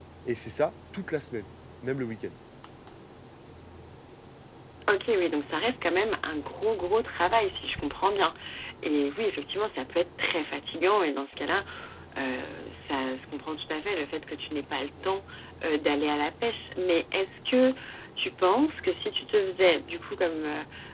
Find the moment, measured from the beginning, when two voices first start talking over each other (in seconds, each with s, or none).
none